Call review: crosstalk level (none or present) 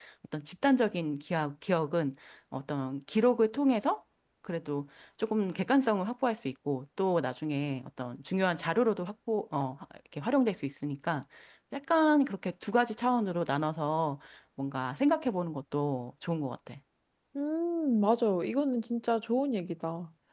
none